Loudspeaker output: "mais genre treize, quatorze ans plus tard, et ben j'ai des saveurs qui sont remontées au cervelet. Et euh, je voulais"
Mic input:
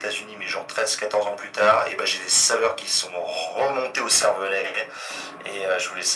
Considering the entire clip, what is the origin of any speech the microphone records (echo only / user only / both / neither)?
echo only